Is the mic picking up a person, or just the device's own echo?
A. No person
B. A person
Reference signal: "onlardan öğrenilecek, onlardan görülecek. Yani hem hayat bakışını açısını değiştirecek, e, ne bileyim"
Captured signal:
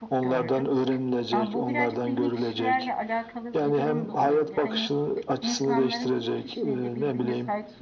B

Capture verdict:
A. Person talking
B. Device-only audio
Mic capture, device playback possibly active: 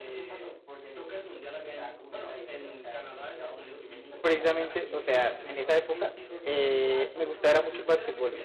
A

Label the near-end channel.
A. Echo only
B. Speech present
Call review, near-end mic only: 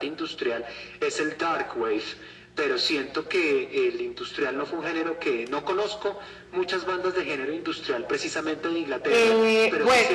B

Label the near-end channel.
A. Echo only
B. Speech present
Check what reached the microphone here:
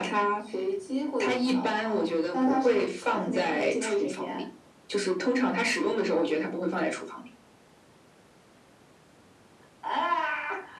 A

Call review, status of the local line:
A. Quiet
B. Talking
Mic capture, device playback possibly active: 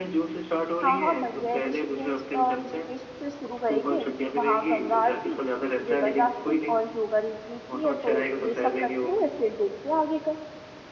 B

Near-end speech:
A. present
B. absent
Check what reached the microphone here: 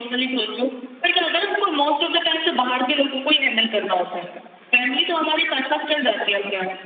B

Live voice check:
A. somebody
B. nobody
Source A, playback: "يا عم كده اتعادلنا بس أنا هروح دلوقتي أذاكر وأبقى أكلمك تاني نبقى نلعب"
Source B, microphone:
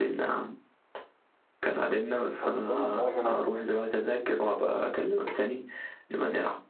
A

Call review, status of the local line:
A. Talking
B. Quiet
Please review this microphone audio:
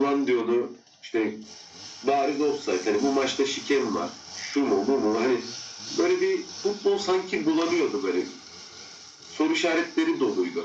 B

